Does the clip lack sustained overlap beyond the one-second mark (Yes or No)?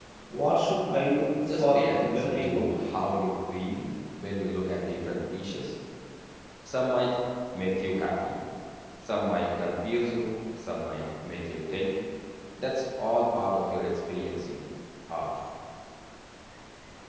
No